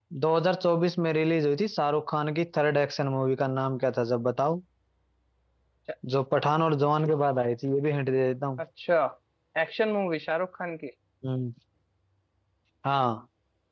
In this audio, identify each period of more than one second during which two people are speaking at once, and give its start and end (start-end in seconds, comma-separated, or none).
none